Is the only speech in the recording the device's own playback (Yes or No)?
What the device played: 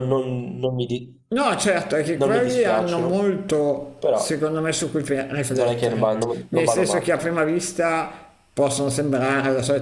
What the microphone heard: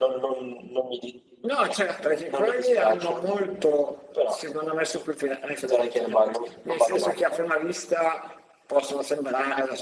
Yes